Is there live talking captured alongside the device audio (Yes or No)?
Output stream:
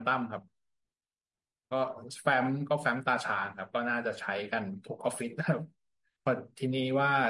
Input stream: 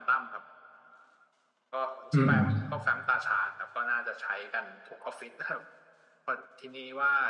Yes